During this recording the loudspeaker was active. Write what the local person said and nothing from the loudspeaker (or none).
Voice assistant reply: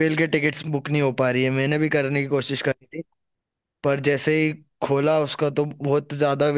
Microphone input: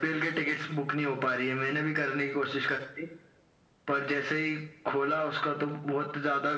none